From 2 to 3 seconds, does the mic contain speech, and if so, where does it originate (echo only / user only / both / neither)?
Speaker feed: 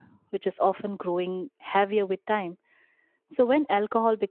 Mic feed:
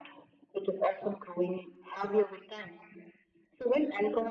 echo only